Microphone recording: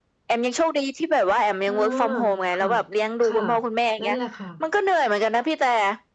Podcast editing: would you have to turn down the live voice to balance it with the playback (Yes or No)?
No